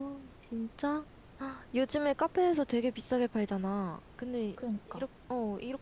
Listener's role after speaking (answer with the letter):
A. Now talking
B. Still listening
B